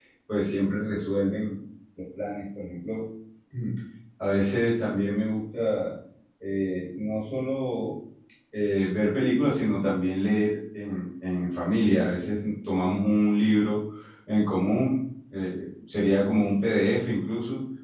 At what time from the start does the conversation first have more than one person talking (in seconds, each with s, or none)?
none